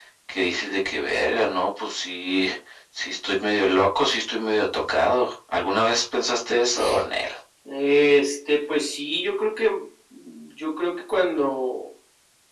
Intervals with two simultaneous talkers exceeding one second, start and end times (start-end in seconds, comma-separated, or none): none